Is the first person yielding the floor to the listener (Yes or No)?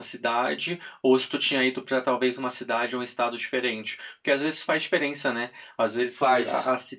No